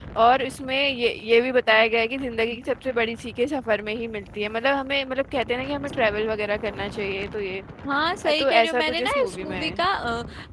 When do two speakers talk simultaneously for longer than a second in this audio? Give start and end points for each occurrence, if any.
8.4-9.8

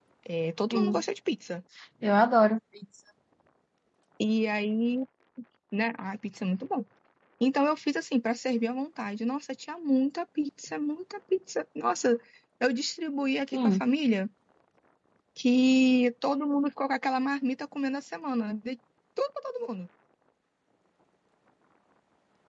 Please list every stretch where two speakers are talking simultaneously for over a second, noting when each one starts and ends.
none

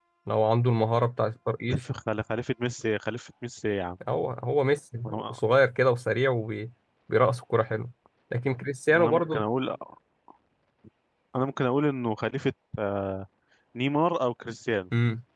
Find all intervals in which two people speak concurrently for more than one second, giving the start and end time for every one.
none

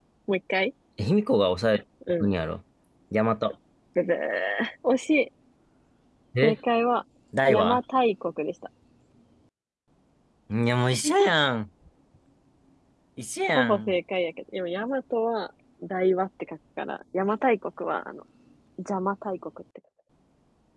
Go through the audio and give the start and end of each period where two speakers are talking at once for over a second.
none

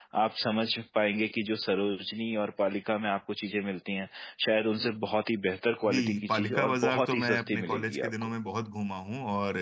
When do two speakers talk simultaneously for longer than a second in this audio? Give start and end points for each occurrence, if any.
5.9-8.3

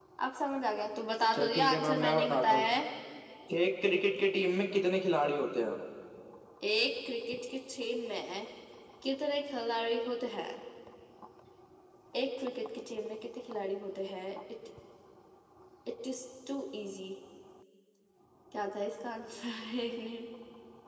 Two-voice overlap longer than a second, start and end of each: 1.3-2.7

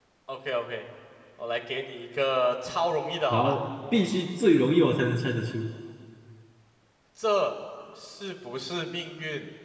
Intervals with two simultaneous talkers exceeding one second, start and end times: none

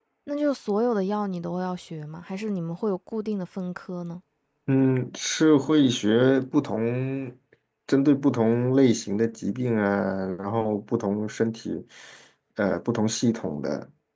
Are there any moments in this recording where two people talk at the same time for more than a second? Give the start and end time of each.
none

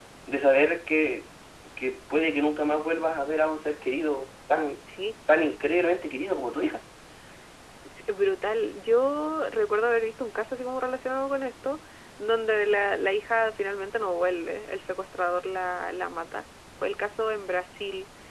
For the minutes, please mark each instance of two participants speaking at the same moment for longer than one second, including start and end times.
none

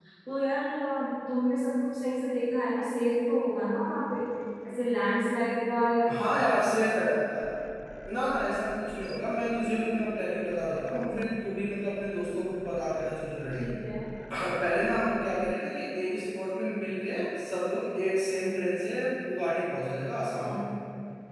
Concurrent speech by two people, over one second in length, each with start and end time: none

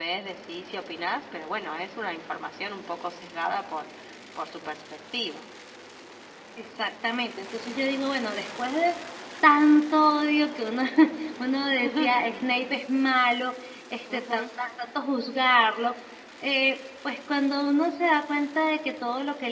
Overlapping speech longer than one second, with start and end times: none

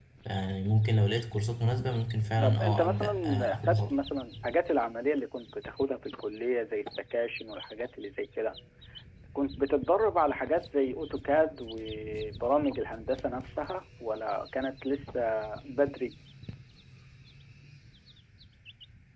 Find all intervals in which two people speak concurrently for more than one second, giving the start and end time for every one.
2.4-3.9

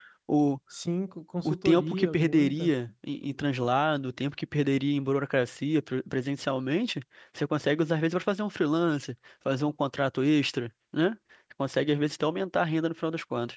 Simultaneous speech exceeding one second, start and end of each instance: 1.4-2.7

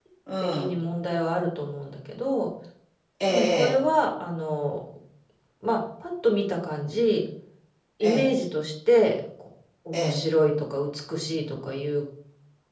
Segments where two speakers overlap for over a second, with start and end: none

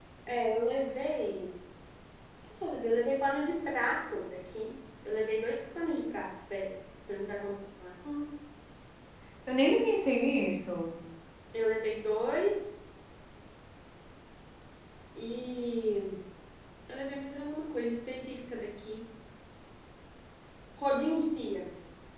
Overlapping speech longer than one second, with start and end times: none

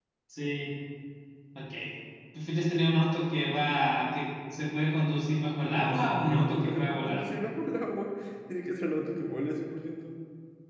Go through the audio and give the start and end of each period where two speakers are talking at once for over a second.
5.6-7.2

